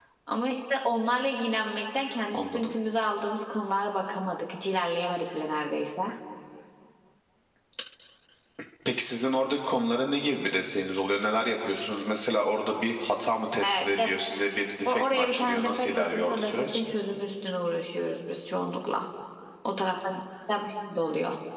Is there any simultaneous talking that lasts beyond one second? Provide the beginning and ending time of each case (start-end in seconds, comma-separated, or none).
14.8-16.8